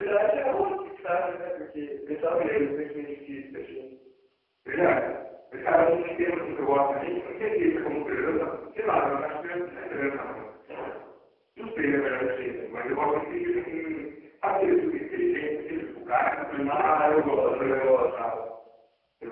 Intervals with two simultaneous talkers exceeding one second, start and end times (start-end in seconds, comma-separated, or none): 16.6-18.2